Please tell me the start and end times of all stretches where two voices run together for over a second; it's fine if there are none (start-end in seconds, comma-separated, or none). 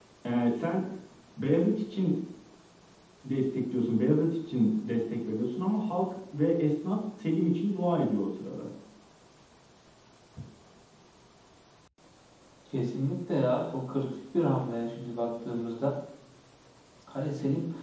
none